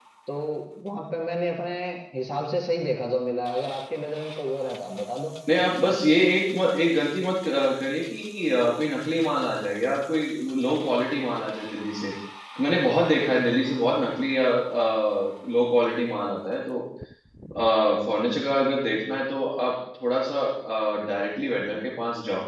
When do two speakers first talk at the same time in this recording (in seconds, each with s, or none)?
none